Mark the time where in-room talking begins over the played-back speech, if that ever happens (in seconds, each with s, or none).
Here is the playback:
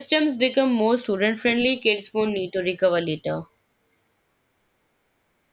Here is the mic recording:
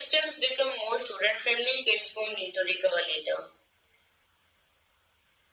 none